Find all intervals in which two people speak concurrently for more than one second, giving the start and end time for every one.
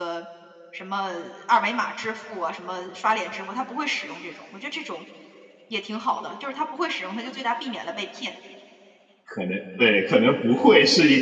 none

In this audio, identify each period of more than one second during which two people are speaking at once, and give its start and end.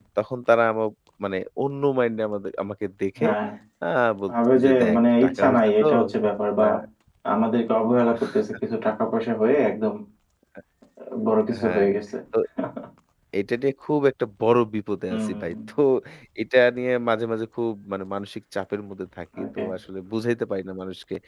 4.3-5.9

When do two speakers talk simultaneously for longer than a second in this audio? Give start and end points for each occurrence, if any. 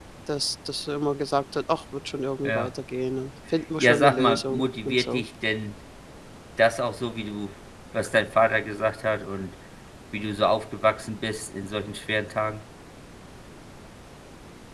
3.8-5.2

